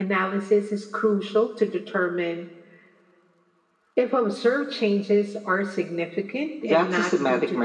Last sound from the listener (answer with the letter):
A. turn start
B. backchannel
A